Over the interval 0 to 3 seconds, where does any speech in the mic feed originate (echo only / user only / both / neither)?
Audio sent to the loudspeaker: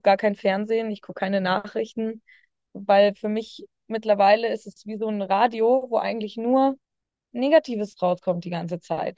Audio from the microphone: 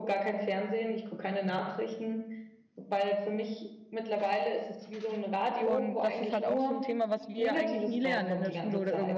echo only